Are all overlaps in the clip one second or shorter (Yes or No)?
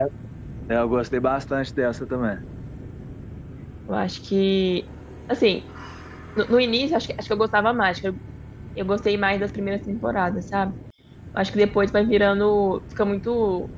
Yes